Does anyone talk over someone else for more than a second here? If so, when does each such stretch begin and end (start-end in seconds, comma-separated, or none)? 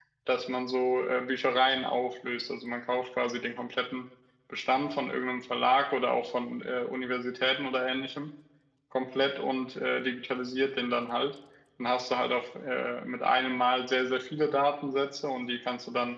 none